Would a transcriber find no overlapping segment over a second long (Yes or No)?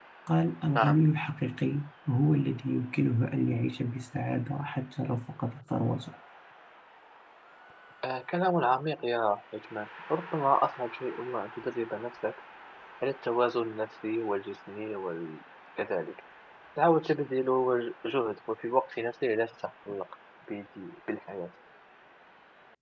Yes